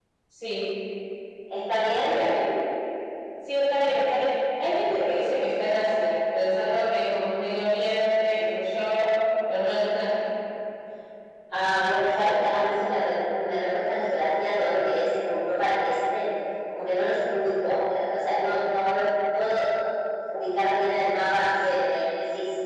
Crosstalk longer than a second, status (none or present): none